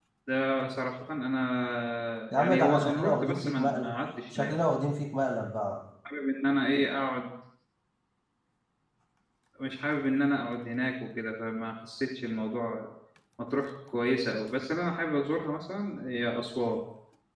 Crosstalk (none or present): present